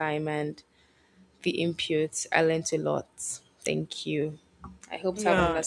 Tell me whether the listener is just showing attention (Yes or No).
No